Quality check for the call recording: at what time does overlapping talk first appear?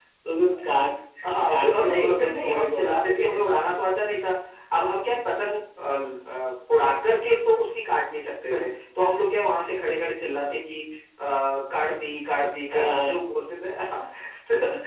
1 s

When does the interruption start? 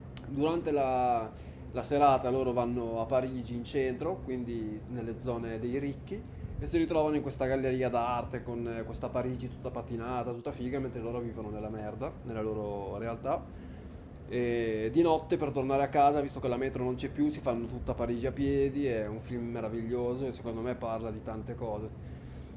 none

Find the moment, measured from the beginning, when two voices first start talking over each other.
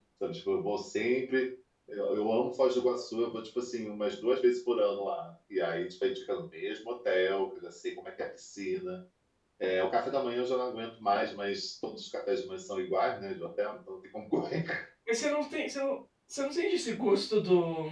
none

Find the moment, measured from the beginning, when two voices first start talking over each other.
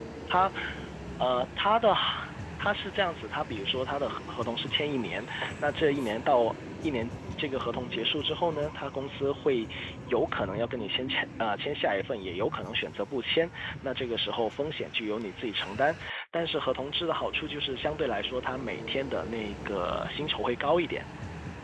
none

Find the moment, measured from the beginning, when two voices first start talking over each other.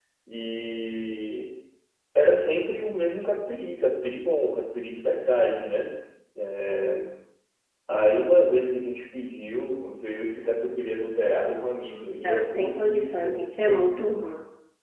12 s

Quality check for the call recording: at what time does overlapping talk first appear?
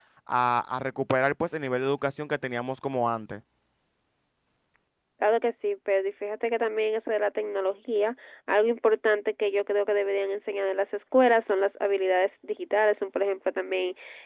none

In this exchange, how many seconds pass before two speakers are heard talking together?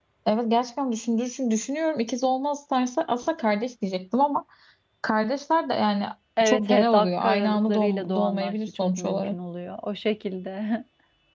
6 s

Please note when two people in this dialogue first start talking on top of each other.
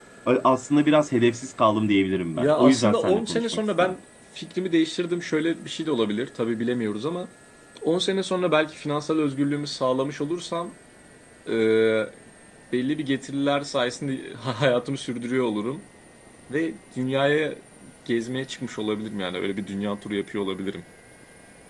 2 s

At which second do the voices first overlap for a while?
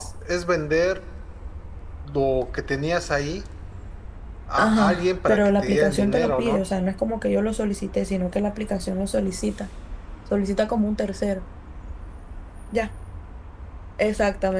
5 s

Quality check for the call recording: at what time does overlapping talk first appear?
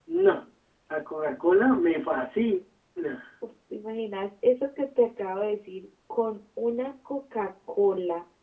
none

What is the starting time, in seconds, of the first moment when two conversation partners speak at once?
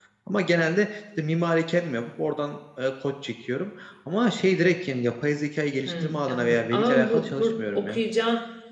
6 s

